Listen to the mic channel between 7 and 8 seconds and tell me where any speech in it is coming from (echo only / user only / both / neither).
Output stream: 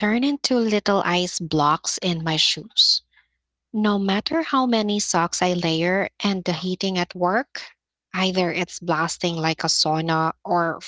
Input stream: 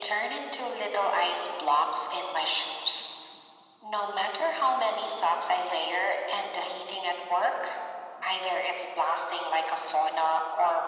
echo only